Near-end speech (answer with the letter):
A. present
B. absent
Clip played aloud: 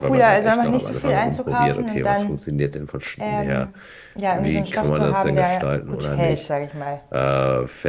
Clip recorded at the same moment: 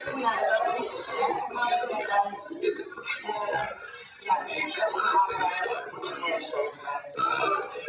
B